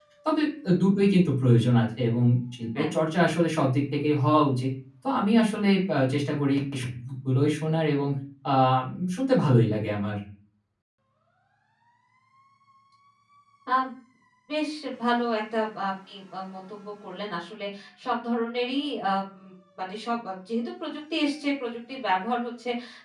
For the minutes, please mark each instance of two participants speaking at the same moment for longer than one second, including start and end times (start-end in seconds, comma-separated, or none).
none